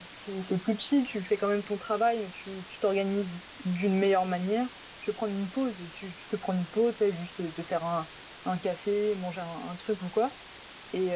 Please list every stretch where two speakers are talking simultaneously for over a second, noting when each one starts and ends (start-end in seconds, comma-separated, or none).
none